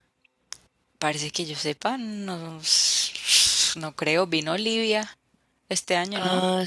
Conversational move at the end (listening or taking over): taking over